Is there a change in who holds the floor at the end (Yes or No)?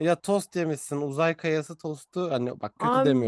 Yes